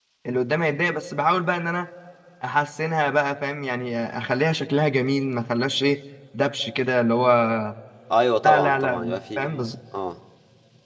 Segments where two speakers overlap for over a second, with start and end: 8.4-9.7

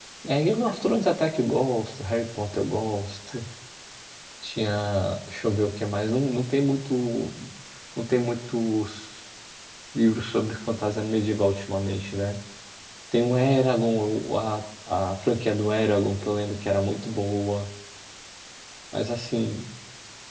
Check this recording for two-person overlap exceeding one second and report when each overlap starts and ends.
none

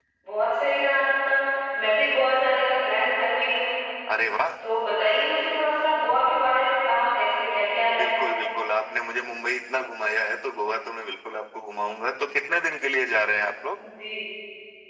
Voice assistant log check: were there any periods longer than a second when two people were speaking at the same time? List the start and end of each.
none

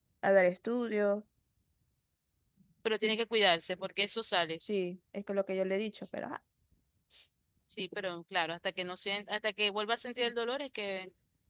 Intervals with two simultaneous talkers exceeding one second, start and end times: none

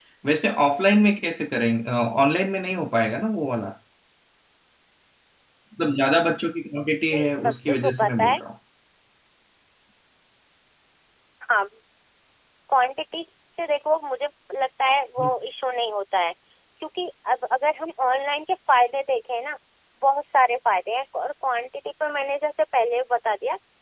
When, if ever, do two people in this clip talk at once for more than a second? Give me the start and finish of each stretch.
7.1-8.4

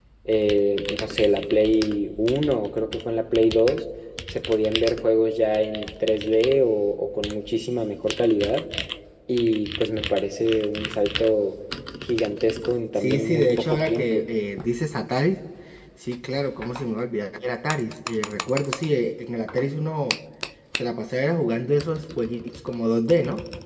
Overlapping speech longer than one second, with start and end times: 13.0-14.3

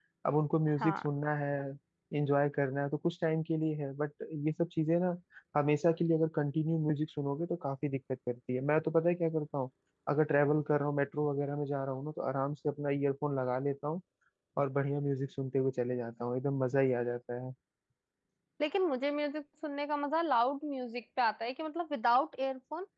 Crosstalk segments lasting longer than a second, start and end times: none

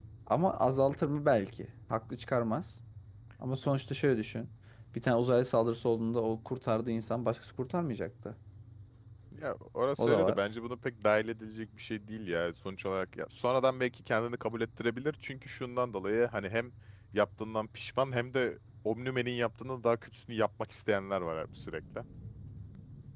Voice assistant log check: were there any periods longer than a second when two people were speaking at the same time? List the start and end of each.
none

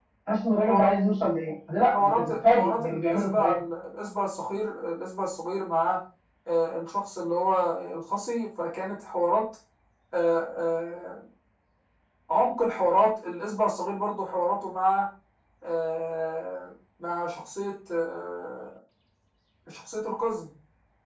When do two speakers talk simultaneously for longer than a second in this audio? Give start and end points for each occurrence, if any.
1.9-3.6

